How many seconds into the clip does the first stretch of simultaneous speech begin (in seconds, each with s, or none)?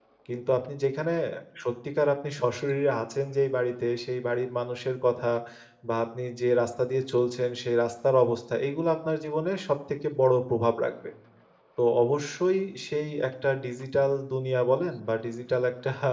none